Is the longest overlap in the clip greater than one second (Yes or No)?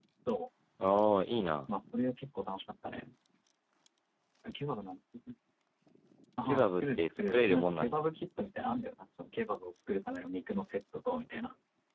Yes